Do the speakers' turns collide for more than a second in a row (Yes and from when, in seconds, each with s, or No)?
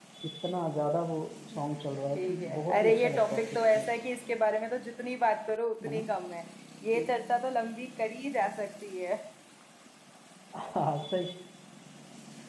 Yes, from 2.2 s